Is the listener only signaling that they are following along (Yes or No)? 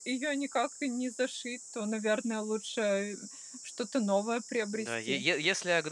No